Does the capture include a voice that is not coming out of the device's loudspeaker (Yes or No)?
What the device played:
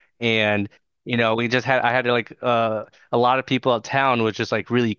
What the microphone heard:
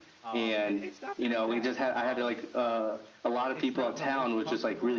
Yes